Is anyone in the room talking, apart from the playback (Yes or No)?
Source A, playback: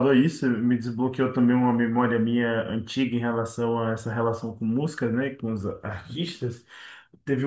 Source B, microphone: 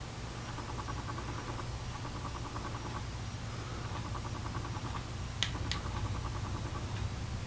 No